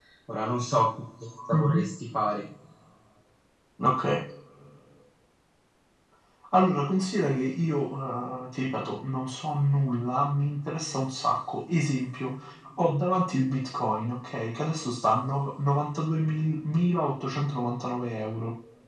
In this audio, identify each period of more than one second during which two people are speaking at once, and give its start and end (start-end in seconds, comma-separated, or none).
none